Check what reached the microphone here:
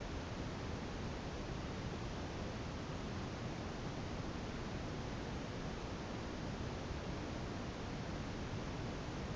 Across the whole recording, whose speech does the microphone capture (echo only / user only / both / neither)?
neither